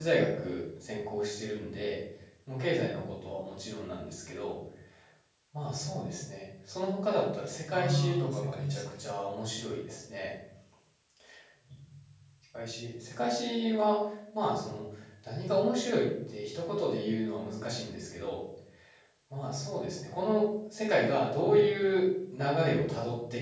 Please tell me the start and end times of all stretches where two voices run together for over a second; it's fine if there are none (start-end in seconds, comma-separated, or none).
7.7-9.0